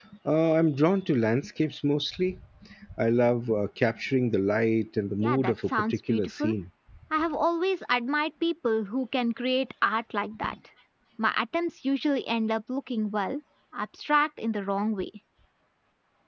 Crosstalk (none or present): present